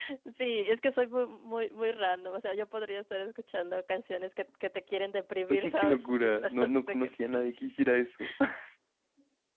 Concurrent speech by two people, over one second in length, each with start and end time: 5.5-7.4

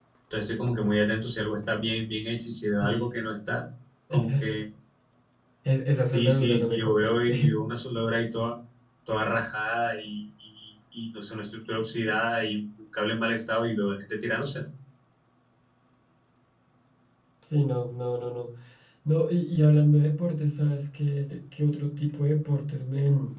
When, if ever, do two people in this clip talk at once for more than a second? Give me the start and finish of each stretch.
6.0-7.6

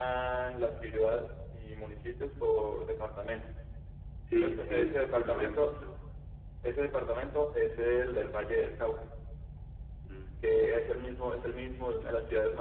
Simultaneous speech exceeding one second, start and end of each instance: 4.4-5.7

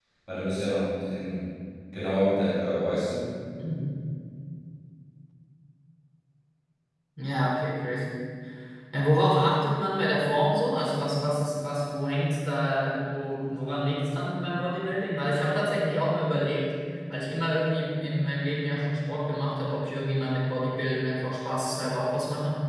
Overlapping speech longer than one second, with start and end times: none

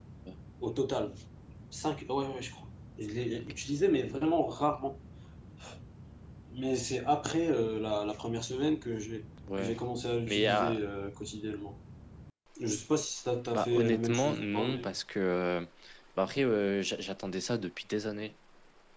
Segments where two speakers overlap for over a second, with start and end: 13.5-15.0

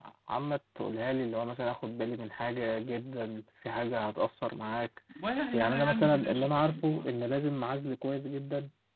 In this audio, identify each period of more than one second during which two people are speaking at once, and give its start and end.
5.5-7.1

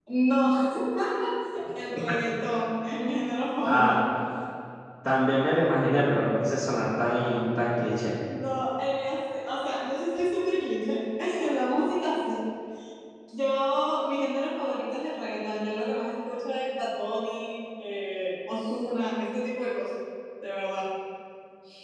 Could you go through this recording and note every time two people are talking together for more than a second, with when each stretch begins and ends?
none

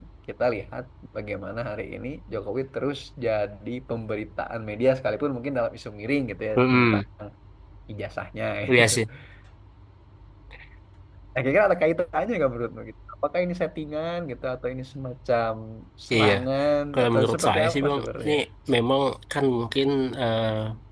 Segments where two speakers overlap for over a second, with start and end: 16.9-18.3

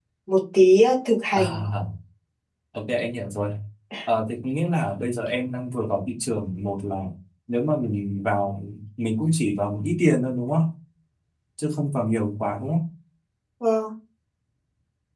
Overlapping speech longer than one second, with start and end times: none

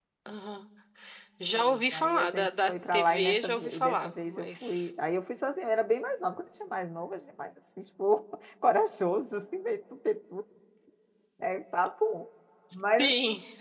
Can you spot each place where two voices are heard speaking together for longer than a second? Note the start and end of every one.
1.5-4.9

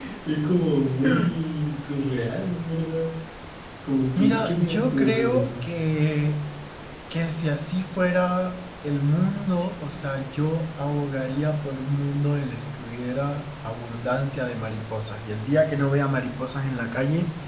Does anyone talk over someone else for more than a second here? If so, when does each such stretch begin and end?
4.2-5.5

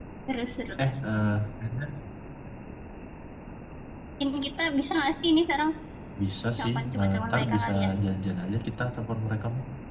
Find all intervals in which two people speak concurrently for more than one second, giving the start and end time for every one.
6.6-7.9

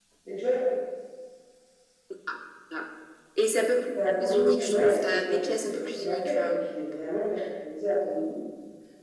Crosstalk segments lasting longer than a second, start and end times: 4.3-6.6

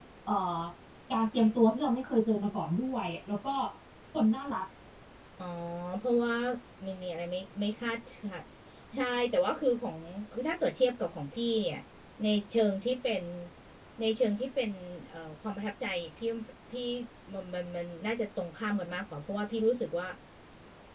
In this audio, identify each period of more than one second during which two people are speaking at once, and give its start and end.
none

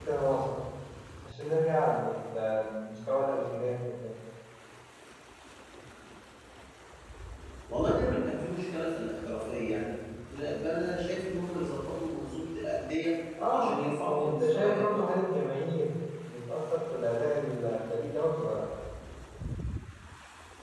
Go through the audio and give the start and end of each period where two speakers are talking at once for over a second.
13.5-14.8

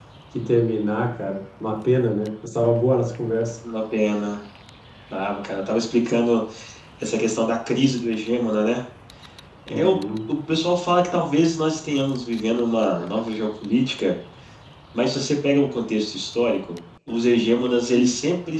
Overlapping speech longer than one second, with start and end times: none

